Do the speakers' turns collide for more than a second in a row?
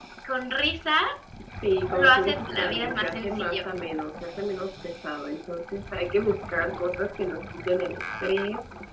Yes, from 1.9 s

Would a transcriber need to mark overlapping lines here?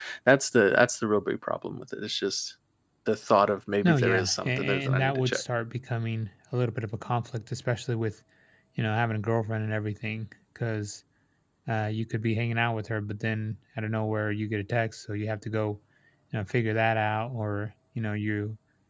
Yes, from 3.8 s

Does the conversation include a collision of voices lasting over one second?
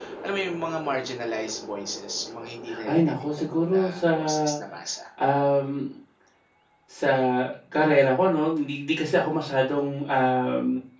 Yes, from 2.7 s

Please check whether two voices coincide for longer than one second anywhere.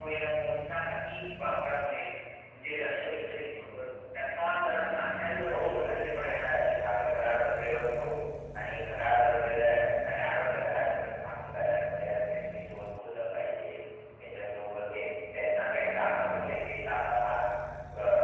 Yes, from 5.5 s

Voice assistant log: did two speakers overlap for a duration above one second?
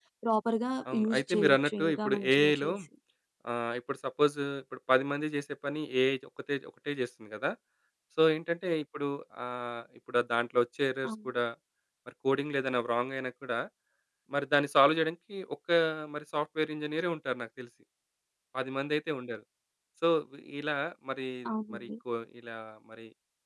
Yes, from 0.9 s

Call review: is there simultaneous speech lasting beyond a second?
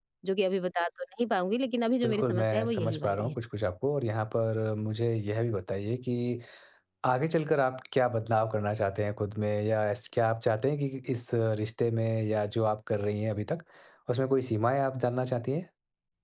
Yes, from 2.0 s

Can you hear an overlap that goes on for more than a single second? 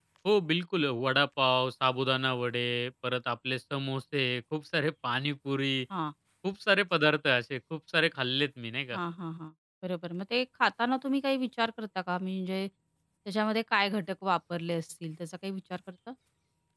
No

